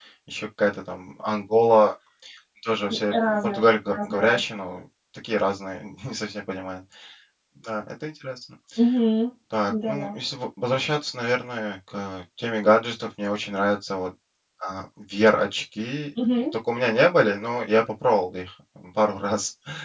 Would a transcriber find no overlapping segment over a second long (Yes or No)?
No